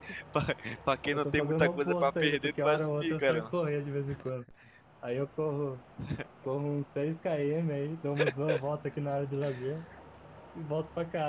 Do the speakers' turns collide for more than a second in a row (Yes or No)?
Yes